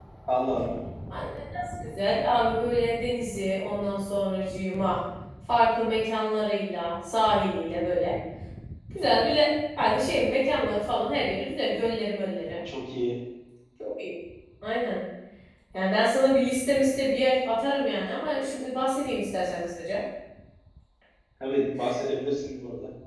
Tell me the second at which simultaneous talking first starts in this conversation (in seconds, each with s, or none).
none